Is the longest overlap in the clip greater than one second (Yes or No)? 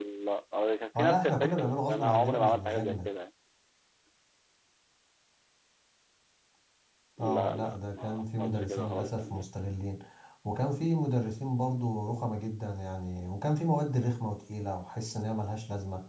Yes